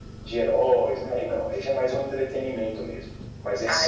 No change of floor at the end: No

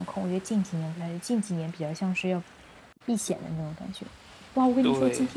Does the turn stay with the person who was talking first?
Yes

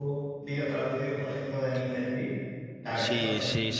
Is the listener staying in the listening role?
No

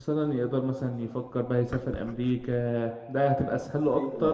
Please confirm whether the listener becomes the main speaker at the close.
Yes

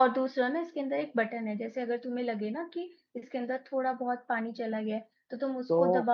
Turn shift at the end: No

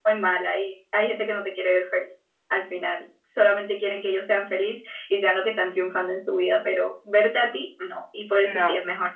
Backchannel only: Yes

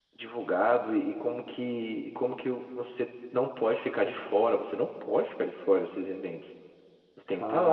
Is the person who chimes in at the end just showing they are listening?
Yes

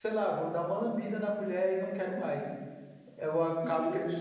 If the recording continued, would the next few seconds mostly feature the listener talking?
No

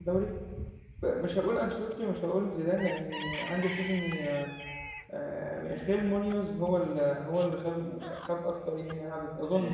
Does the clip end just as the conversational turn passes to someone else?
Yes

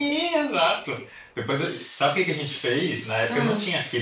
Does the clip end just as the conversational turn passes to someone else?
No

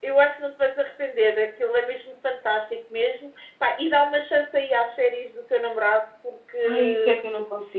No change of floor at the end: No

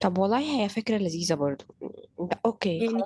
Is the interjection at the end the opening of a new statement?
Yes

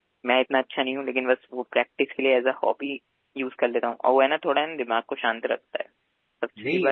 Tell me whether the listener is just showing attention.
No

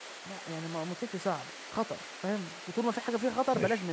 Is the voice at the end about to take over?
Yes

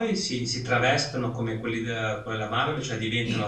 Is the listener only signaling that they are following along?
No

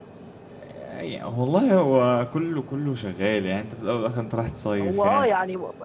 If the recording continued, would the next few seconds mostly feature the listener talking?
Yes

